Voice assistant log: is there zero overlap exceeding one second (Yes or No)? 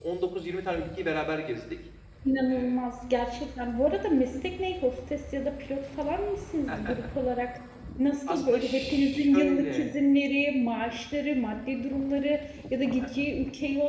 No